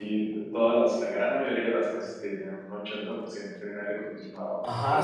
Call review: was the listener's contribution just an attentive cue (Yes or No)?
No